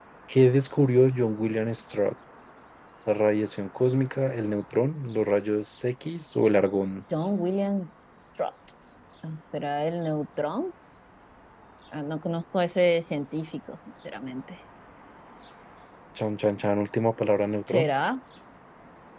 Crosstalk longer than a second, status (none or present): none